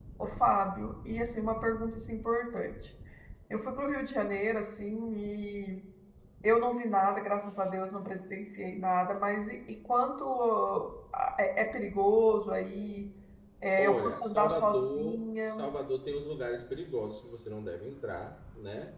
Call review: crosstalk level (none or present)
present